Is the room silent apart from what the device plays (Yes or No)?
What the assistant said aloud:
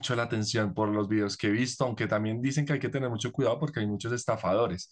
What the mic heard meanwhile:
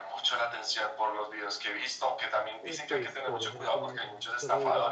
No